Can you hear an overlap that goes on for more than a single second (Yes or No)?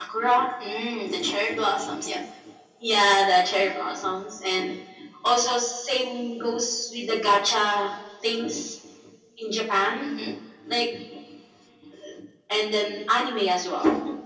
No